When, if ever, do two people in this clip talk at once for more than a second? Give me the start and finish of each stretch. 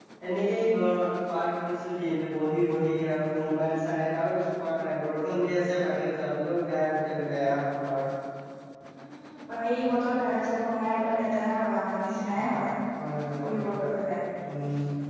none

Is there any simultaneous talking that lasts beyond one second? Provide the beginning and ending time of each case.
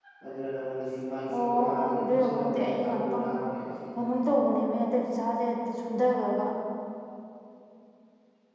1.4-3.3

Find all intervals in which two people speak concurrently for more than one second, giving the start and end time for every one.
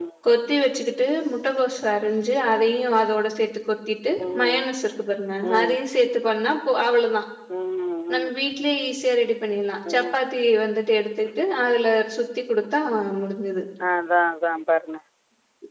none

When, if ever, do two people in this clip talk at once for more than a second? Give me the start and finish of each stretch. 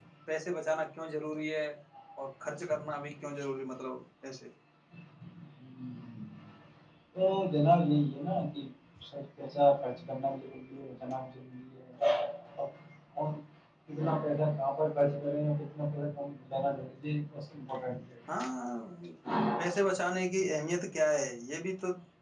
none

